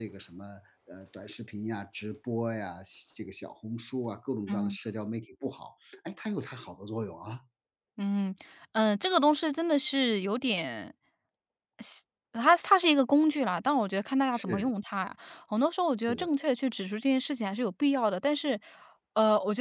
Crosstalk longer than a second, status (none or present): none